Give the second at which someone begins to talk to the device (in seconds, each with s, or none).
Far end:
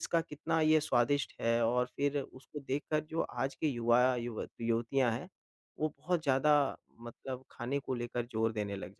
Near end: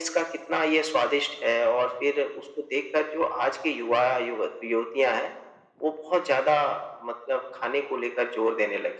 none